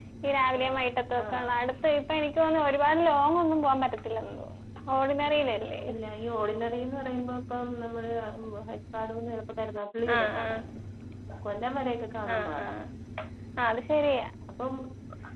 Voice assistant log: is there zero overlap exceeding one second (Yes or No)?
Yes